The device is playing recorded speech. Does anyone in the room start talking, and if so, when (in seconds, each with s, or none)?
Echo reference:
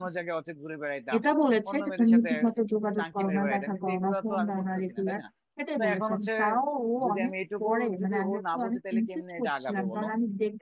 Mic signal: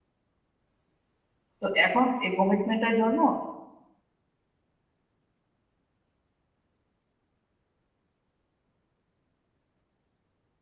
1.6 s